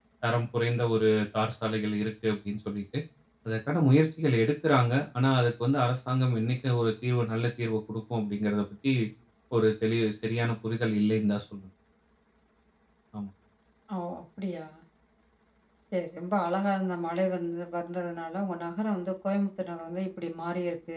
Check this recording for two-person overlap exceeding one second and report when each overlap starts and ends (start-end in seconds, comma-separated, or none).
none